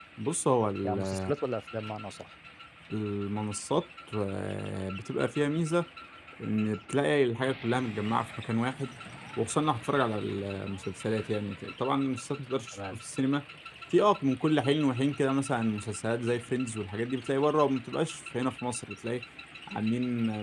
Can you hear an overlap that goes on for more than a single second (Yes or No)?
No